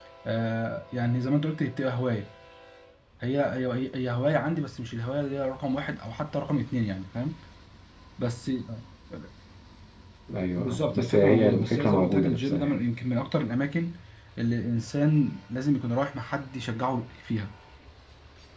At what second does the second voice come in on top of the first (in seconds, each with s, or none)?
10.6 s